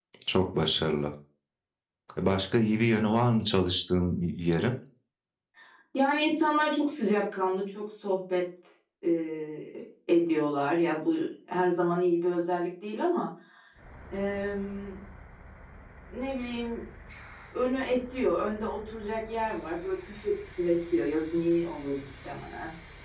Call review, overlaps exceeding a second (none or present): none